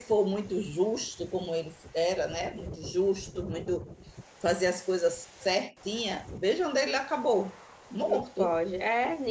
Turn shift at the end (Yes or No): Yes